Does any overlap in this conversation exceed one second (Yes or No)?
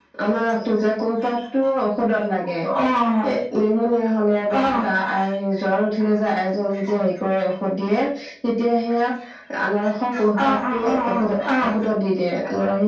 Yes